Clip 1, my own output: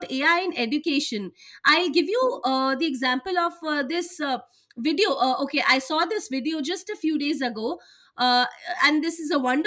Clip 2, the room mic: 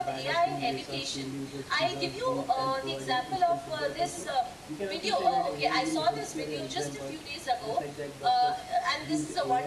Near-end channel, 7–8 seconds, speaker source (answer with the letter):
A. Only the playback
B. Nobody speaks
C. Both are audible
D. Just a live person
C